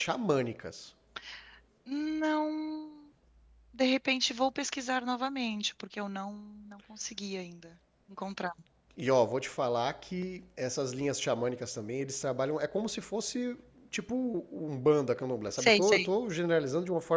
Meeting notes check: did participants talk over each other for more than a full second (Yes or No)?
No